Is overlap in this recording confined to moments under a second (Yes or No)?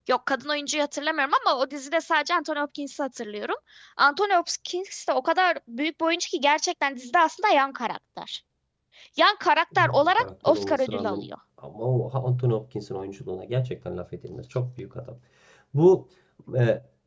No